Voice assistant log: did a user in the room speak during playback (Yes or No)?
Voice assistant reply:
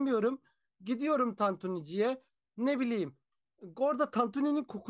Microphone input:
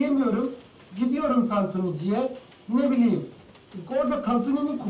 No